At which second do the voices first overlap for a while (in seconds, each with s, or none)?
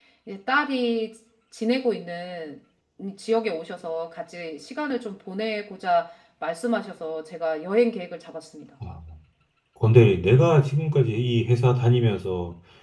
none